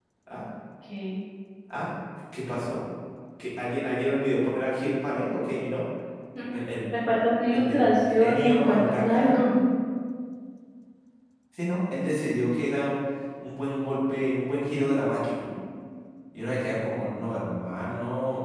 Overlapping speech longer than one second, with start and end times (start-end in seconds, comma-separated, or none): 7.5-9.4